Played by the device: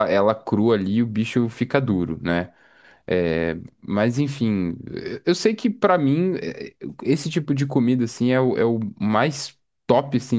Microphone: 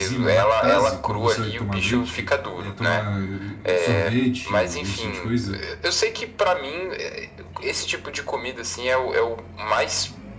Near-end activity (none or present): present